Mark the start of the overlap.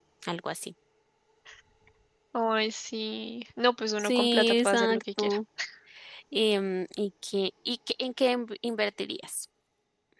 4.0 s

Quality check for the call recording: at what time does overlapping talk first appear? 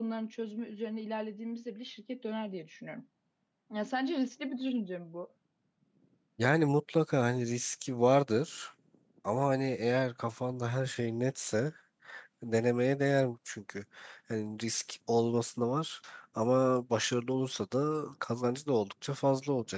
none

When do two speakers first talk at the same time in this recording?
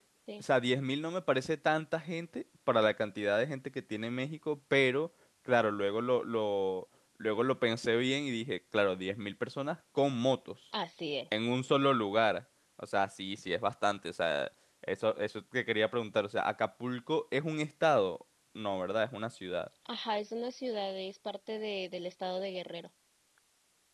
none

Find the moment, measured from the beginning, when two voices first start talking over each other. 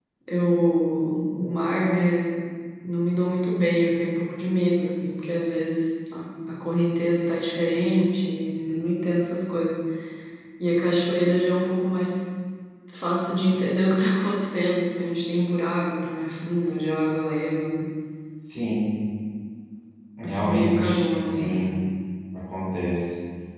20.2 s

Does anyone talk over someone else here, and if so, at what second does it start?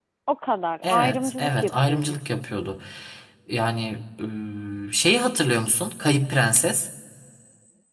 0.8 s

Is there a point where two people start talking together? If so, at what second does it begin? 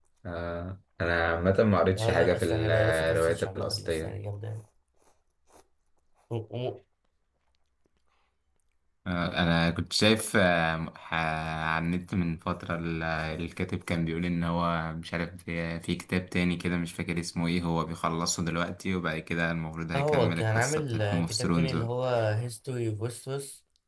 2.0 s

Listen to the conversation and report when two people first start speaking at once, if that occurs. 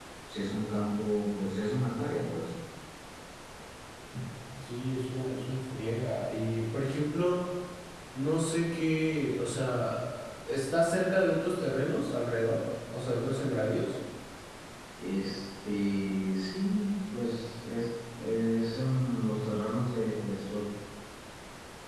none

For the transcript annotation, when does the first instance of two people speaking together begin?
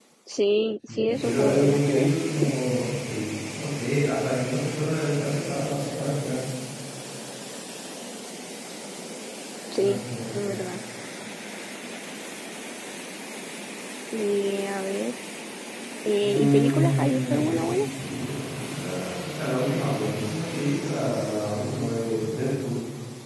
0.9 s

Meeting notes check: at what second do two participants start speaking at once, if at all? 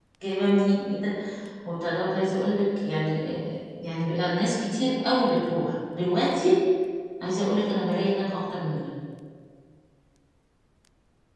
none

